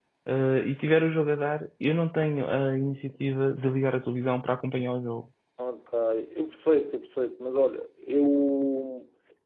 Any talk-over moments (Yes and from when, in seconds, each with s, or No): No